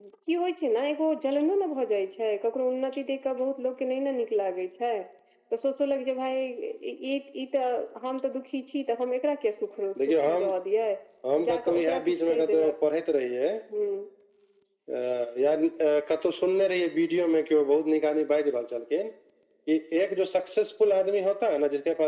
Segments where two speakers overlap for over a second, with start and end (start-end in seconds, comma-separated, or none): 11.5-12.7